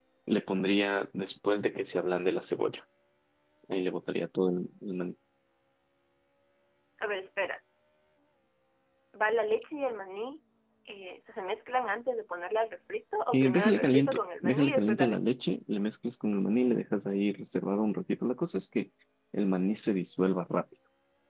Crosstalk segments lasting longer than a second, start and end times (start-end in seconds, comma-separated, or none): 13.3-15.3